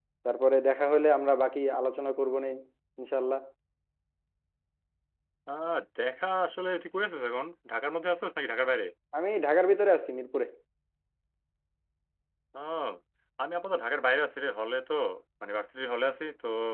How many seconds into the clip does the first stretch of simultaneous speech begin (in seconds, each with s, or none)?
none